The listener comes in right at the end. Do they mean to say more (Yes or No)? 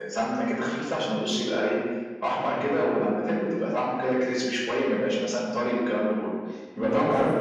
Yes